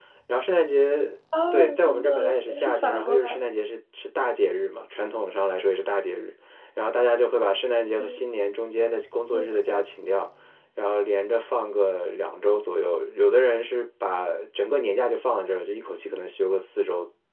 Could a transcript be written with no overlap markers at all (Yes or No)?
No